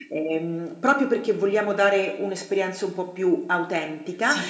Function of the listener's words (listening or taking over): taking over